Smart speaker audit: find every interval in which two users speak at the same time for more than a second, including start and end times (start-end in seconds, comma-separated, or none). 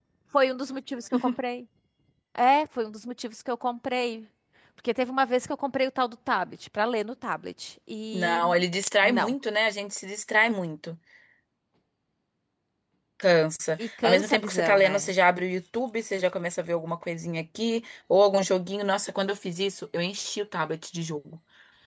13.8-15.1